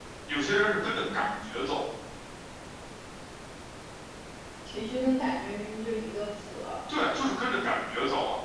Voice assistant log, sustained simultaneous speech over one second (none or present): none